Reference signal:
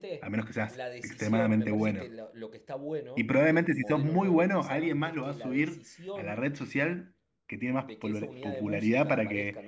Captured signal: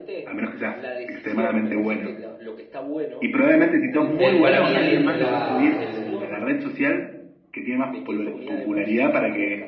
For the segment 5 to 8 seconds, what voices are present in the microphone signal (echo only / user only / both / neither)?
both